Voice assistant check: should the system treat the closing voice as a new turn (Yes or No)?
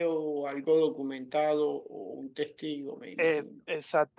Yes